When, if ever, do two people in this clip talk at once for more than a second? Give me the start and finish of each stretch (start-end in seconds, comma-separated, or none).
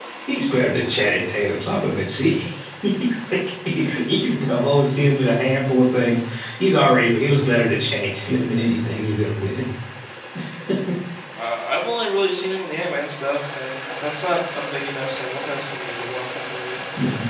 none